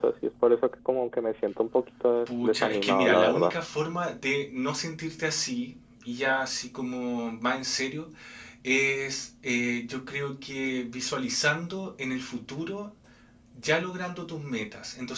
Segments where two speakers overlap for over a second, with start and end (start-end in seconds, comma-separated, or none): 2.3-3.5